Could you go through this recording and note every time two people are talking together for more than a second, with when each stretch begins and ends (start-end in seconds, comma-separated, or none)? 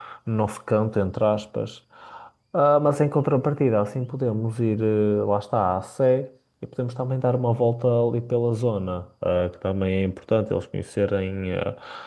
none